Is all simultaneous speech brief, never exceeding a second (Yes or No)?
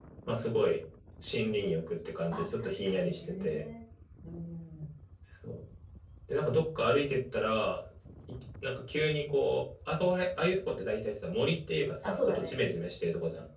No